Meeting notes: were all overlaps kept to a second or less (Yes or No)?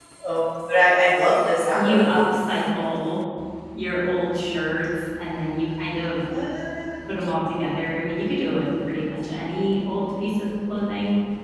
Yes